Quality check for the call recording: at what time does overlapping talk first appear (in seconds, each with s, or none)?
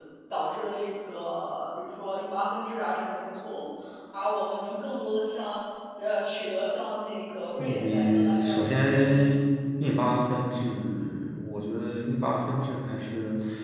7.6 s